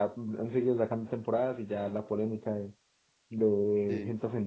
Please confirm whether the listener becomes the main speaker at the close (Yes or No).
No